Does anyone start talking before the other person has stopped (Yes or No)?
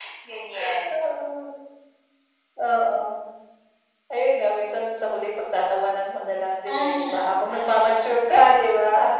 Yes